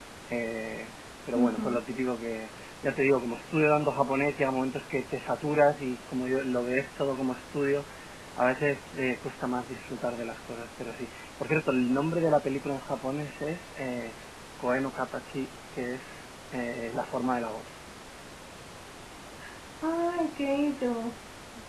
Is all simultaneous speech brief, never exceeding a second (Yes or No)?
Yes